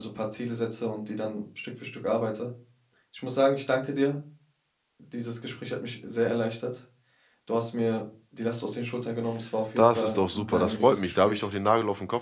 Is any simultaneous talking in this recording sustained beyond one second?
Yes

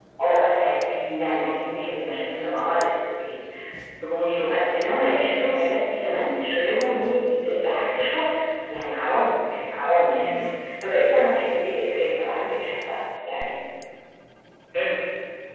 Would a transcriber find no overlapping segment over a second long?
Yes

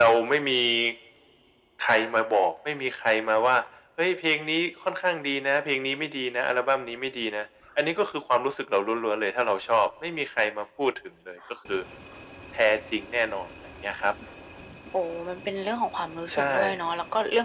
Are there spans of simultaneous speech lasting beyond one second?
No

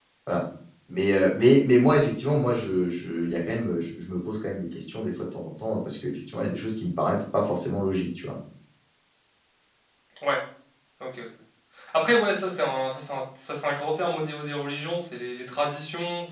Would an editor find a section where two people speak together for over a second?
No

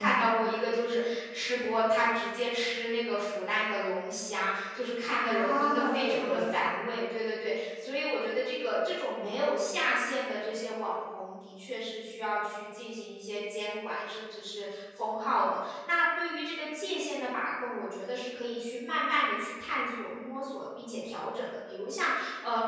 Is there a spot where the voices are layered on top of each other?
Yes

